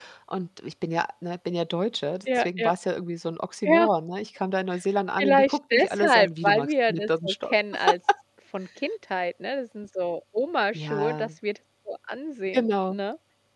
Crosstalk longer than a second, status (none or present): present